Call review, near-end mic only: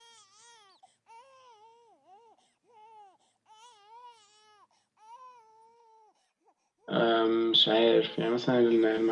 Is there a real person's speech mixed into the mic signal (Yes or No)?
Yes